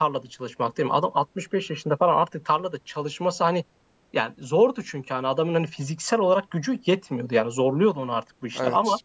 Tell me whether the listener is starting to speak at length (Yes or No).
No